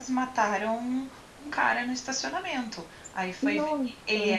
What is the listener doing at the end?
listening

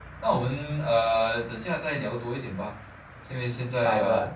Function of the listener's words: listening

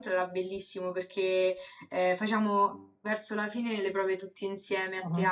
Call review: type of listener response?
listening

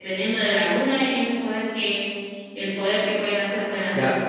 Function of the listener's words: taking over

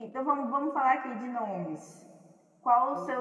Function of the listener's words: listening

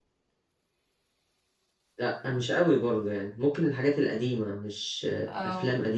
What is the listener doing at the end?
listening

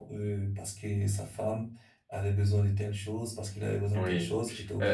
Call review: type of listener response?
taking over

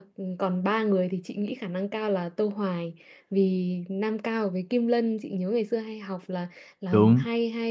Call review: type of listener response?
listening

